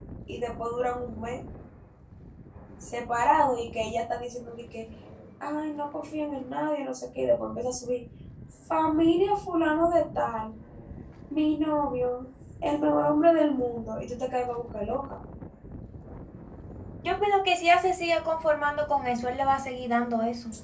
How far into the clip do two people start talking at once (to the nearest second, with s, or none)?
none